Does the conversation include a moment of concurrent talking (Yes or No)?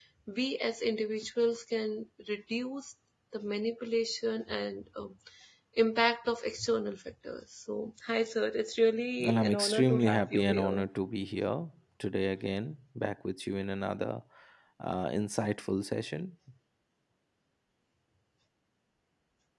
Yes